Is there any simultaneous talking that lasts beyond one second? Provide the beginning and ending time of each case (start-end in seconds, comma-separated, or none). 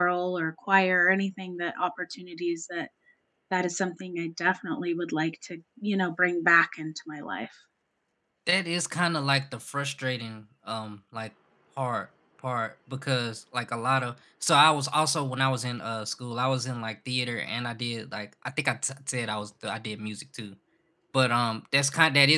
none